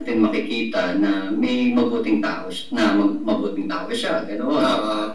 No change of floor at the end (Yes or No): Yes